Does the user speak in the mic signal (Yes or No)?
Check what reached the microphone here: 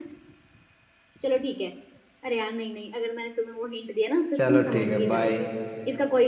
Yes